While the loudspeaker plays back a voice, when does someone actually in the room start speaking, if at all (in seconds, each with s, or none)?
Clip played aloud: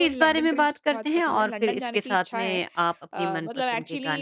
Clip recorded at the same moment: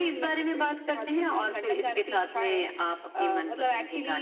none